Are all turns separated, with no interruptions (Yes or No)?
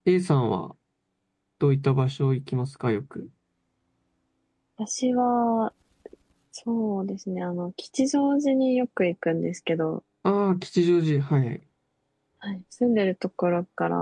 Yes